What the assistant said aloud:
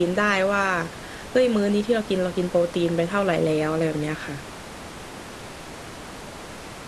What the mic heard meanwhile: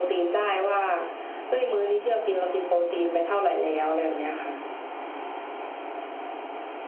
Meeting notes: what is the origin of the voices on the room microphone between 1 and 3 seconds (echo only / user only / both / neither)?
echo only